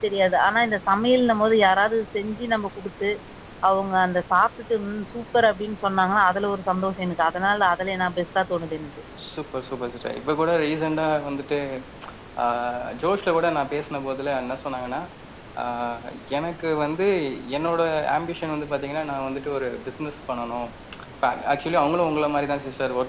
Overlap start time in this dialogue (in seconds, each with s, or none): none